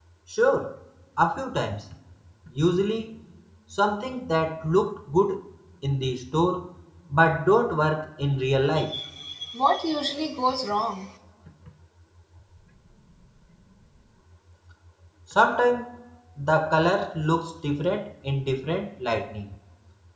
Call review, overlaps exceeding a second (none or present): none